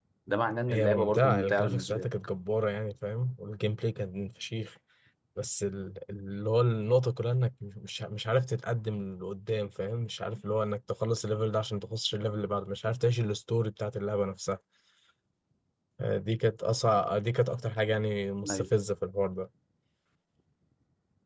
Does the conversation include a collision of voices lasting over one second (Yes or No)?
Yes